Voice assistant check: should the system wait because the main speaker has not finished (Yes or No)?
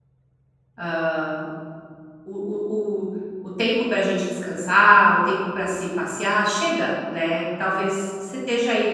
Yes